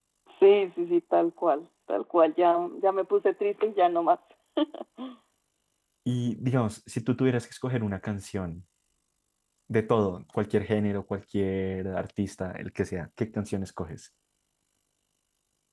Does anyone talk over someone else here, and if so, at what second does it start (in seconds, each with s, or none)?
none